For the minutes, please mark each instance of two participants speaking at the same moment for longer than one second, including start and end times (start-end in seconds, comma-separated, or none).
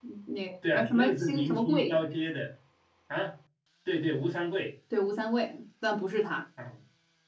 0.7-2.0